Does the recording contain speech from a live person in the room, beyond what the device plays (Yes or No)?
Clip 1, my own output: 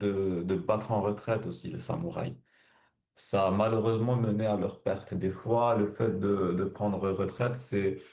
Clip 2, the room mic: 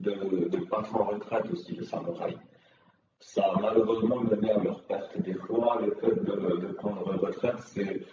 No